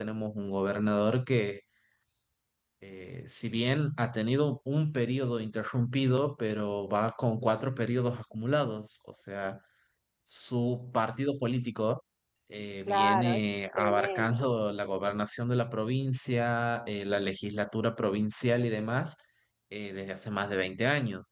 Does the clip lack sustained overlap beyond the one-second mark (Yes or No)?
No